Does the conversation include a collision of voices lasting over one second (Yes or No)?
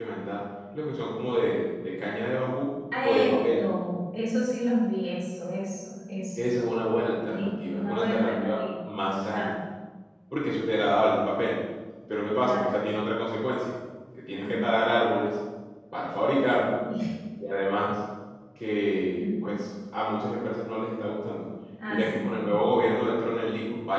Yes